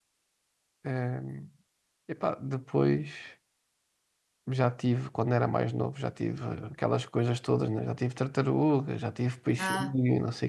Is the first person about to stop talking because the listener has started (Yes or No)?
No